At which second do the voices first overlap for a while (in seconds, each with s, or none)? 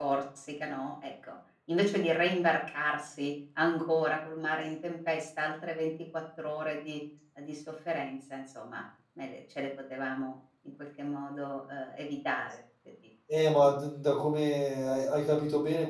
none